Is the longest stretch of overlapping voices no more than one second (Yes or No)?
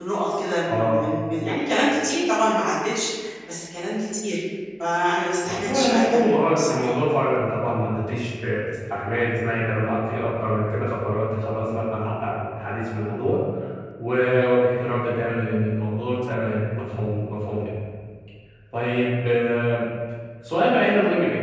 No